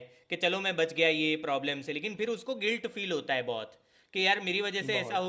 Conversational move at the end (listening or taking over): listening